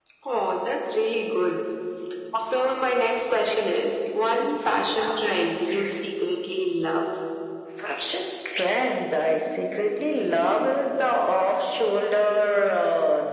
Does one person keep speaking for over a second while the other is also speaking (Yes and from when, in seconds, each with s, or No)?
No